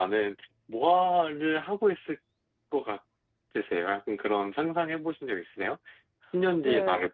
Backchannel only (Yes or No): No